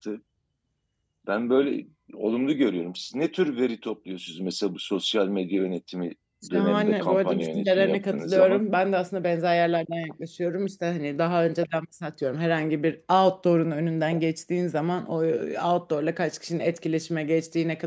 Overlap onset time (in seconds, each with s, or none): 6.5 s